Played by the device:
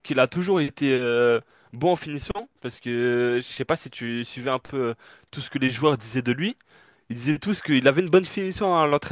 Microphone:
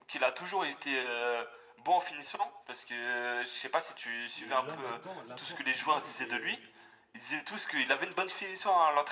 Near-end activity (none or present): present